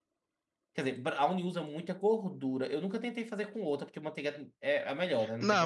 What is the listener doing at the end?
taking over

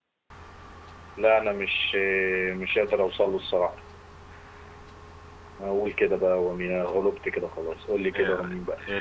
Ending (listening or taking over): taking over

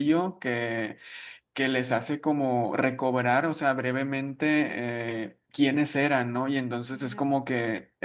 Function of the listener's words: listening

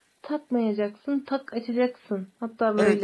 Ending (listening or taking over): taking over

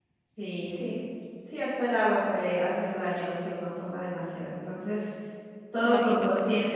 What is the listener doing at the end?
listening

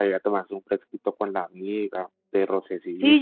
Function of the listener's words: taking over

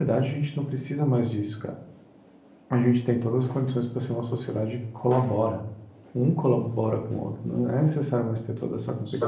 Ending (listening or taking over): taking over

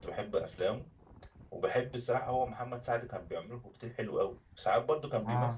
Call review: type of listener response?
listening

